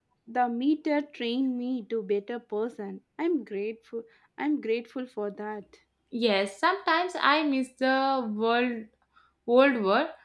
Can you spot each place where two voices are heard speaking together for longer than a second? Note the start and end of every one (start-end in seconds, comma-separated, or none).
none